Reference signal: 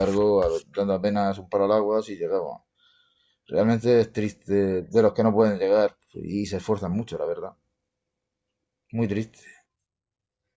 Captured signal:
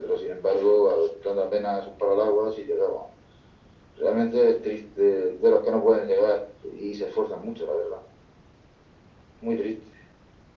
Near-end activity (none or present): none